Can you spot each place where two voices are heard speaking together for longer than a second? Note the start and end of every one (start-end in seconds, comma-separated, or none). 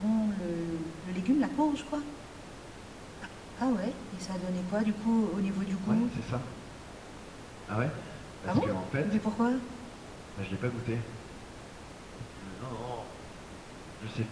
none